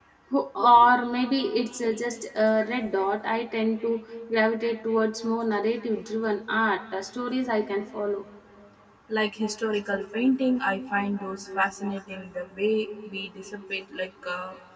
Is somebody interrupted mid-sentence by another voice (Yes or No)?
No